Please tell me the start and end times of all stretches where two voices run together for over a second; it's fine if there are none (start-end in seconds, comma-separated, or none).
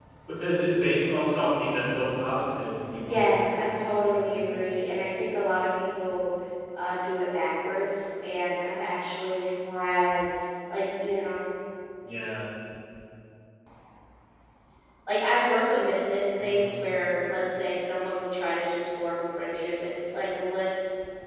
3.1-4.6